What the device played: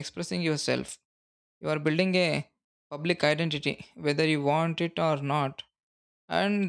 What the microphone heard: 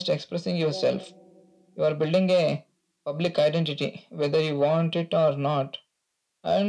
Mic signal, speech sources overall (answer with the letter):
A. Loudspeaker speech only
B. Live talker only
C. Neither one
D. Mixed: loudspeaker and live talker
D